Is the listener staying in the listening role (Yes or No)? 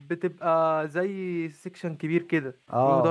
No